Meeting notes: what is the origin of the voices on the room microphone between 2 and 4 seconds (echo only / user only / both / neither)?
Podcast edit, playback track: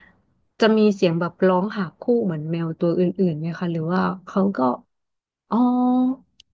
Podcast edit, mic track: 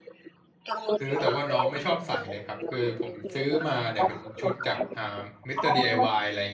both